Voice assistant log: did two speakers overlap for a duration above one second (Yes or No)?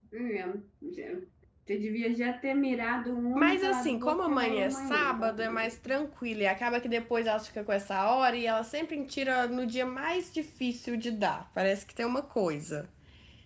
Yes